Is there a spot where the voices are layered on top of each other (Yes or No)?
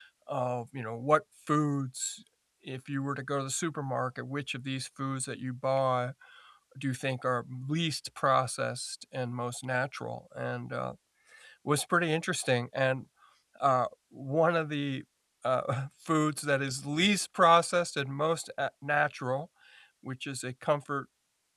No